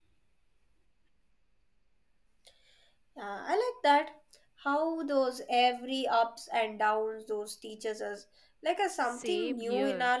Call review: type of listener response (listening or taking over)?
taking over